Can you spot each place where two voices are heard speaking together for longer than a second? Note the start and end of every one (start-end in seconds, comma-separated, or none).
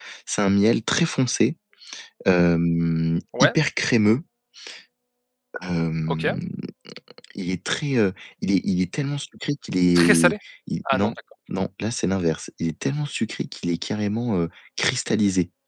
none